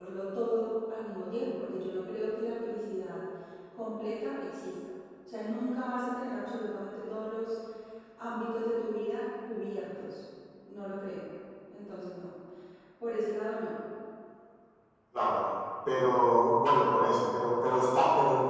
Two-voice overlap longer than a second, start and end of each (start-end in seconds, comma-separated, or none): none